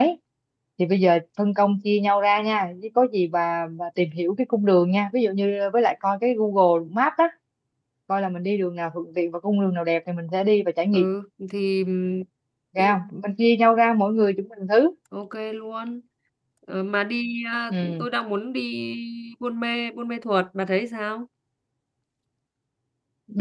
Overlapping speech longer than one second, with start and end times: none

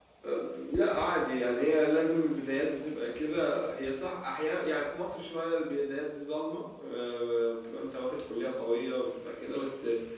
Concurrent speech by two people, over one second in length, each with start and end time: none

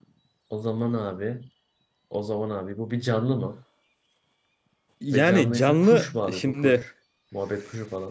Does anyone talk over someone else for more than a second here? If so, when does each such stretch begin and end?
5.1-6.8

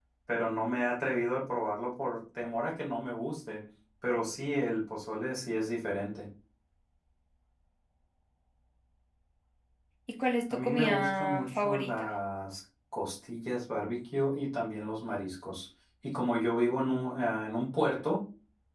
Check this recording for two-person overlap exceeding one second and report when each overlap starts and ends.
10.5-11.9

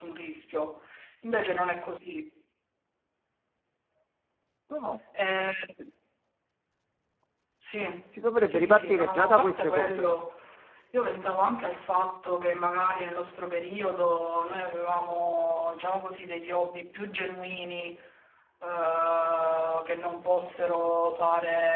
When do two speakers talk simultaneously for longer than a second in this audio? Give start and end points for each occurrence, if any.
8.2-10.1

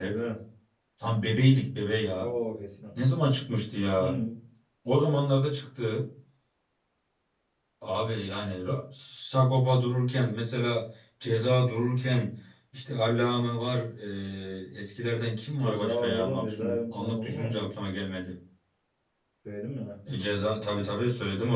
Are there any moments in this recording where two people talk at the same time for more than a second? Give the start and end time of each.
15.6-17.9

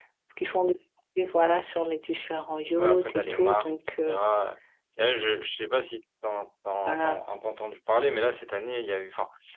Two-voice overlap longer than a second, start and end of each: 2.8-4.2

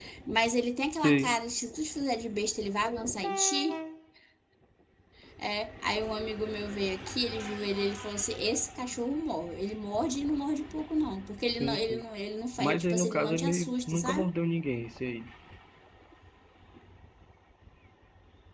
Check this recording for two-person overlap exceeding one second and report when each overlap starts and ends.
12.6-14.3

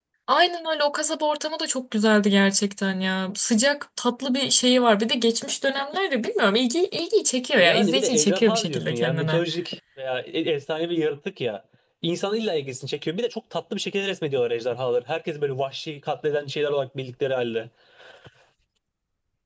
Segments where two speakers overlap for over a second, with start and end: 7.6-9.4

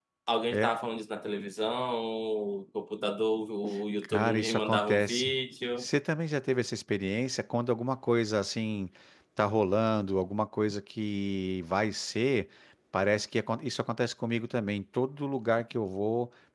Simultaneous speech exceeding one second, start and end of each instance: 4.0-5.3

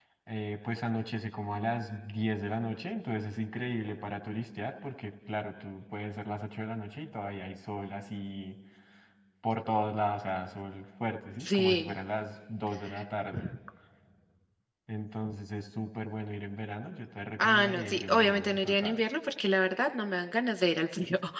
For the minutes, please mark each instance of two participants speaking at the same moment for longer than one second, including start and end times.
17.4-19.0

